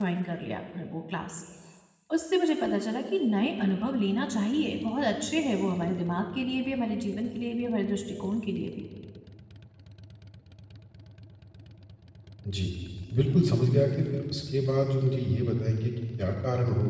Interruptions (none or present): none